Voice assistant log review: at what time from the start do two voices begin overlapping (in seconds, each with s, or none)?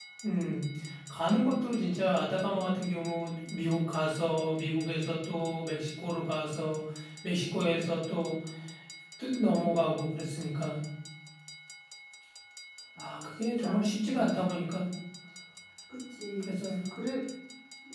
13.0 s